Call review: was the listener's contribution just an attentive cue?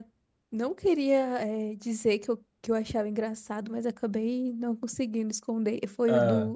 Yes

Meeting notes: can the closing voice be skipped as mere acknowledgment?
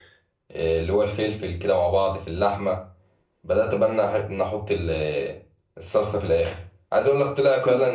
Yes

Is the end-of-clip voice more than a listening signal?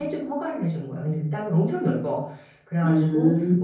No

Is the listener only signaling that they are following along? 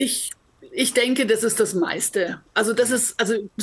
Yes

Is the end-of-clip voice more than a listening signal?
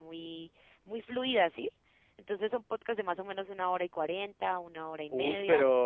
Yes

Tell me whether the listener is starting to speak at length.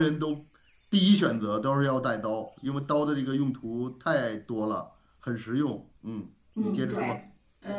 Yes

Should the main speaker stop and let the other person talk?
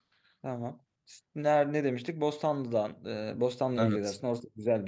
No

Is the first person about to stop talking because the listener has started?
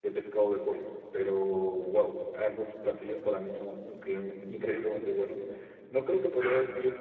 No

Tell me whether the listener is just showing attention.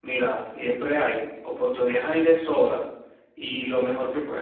Yes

